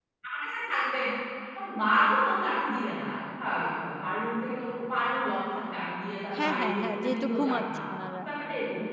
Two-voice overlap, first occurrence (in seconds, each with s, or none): 6.3 s